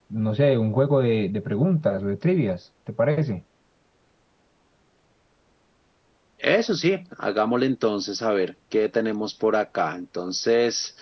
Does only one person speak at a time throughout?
Yes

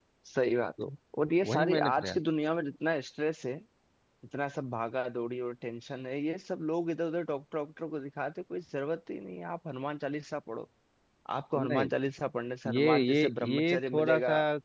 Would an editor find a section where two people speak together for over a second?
Yes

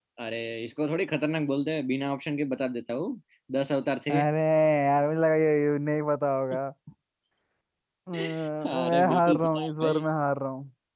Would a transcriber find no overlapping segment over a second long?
No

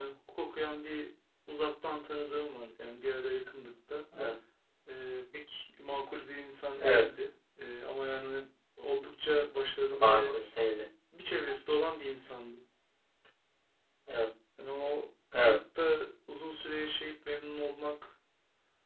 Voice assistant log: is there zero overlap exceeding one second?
Yes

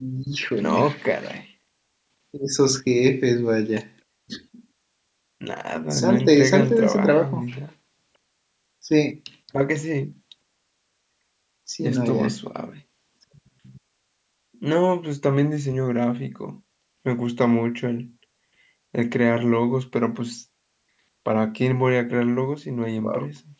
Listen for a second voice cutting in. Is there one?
Yes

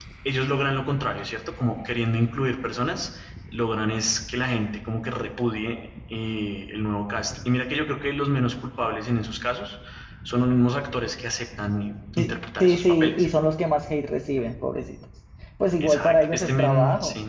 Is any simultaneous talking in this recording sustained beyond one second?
Yes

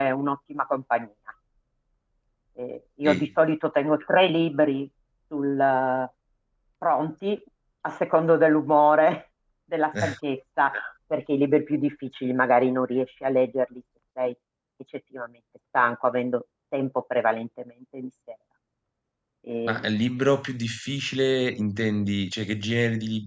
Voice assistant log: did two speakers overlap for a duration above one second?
No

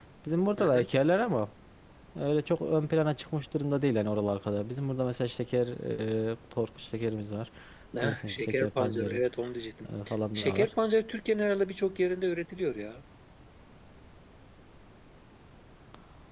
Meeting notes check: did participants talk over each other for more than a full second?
Yes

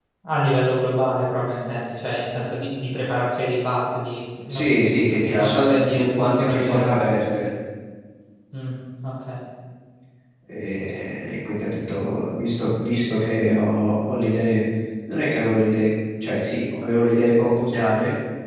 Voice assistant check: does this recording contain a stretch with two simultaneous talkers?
Yes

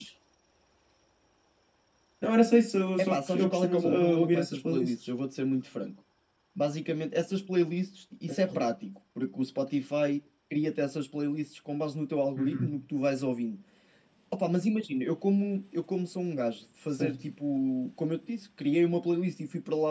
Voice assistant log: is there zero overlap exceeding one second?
No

